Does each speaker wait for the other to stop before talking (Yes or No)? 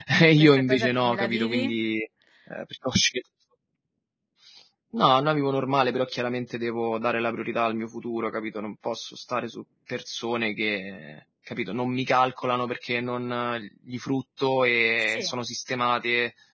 No